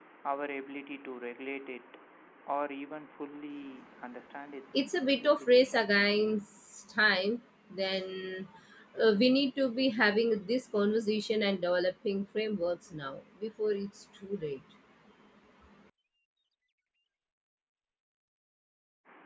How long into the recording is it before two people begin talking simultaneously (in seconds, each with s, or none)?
4.7 s